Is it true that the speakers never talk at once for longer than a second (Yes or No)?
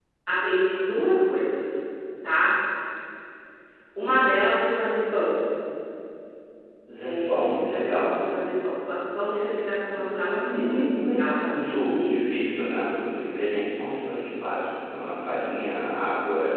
No